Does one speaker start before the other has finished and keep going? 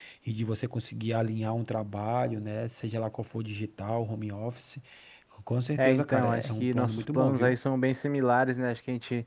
Yes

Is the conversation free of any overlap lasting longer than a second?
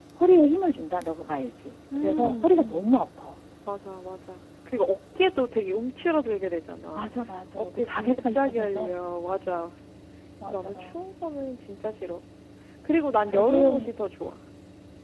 No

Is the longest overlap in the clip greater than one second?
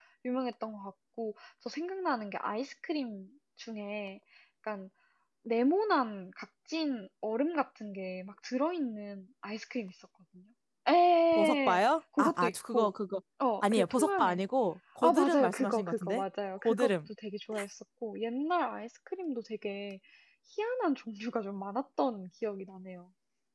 Yes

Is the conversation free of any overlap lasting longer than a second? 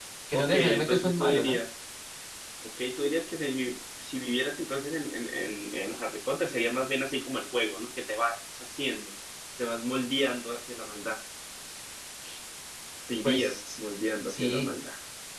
No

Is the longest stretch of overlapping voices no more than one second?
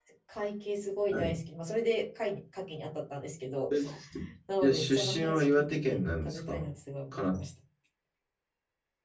No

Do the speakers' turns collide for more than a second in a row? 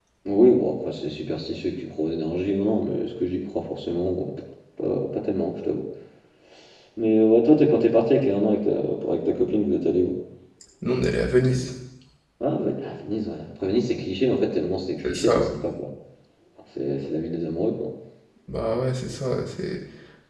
No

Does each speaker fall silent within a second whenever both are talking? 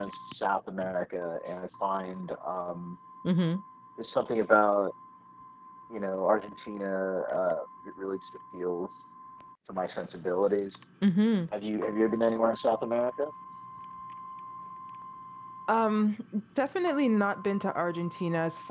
Yes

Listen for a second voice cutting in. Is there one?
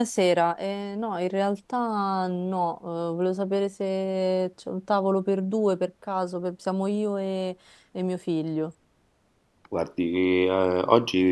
No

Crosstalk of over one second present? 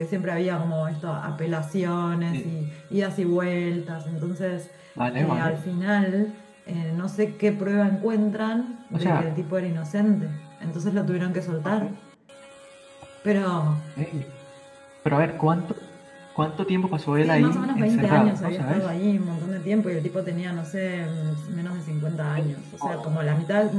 Yes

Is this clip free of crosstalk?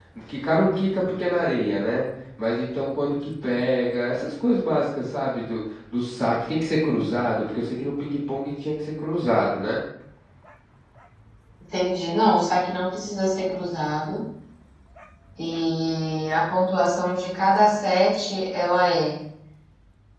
Yes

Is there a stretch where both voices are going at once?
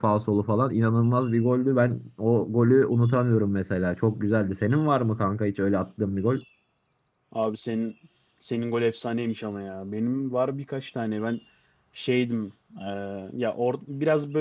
No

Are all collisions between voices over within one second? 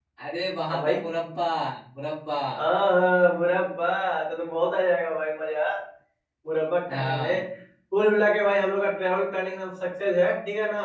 Yes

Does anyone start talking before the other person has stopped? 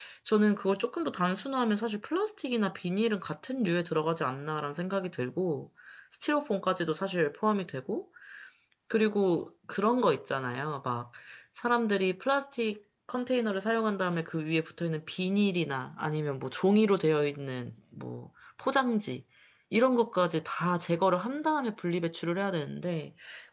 No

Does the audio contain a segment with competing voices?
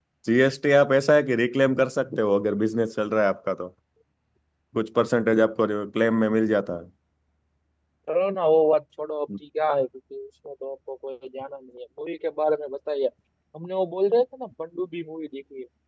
No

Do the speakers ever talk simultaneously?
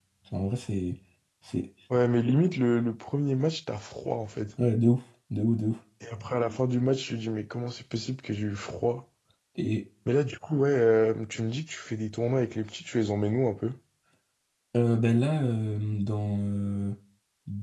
No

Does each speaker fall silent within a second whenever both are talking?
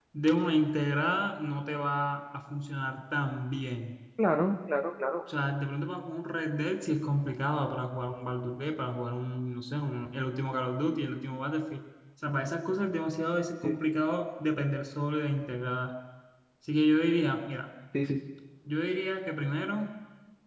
Yes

